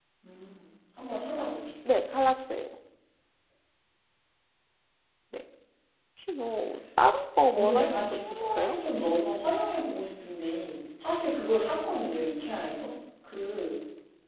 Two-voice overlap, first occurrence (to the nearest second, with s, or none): 7 s